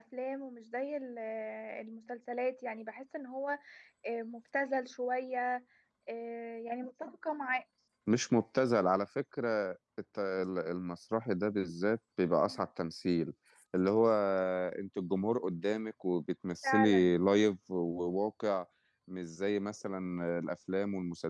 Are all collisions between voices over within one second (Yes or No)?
Yes